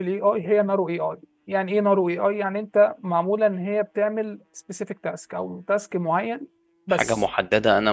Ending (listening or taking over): taking over